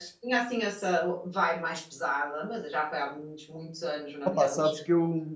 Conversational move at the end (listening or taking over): taking over